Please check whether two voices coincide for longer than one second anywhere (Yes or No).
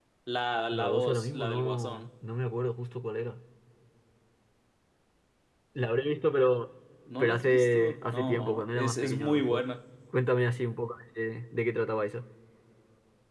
Yes